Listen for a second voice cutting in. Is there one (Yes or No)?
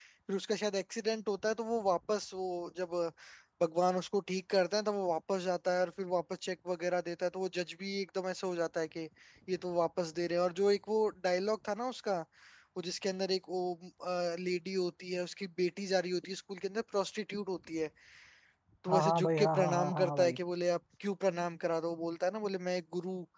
Yes